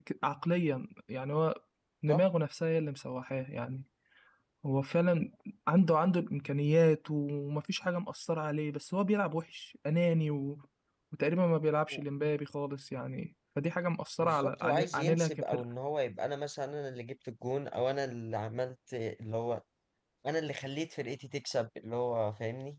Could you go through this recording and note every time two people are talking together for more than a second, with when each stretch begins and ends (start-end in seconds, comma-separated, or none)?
14.2-15.6